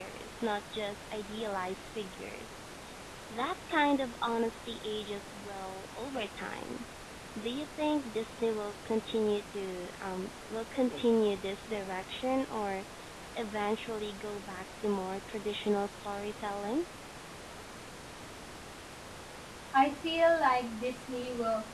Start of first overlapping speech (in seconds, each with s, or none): none